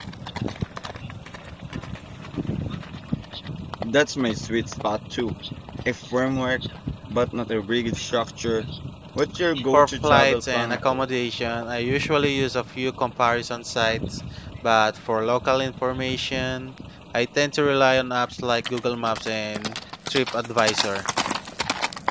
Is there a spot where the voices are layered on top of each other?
Yes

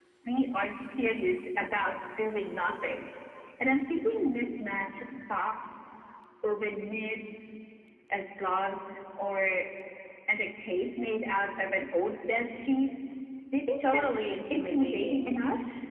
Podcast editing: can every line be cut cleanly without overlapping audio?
No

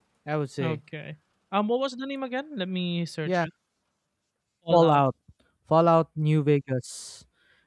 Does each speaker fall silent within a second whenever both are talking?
Yes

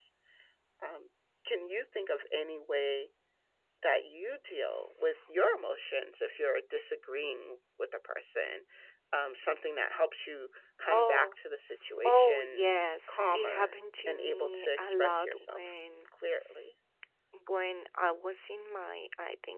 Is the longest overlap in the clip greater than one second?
Yes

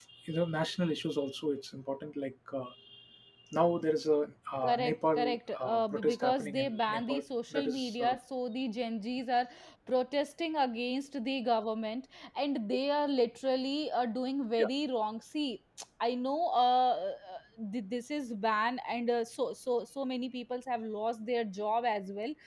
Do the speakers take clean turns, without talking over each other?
No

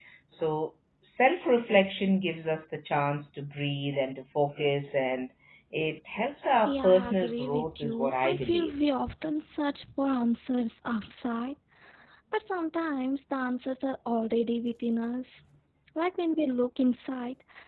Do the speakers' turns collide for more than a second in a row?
Yes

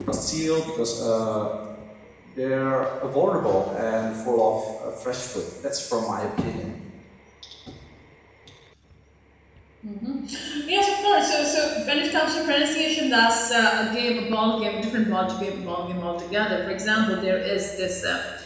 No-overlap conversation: Yes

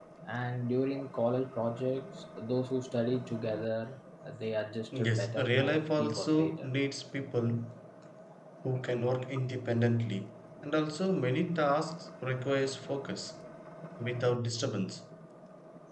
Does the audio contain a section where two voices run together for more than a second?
Yes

